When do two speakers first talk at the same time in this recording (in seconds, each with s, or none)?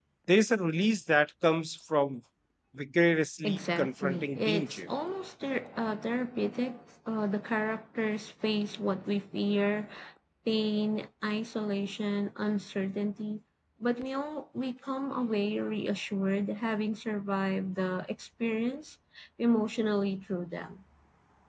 3.4 s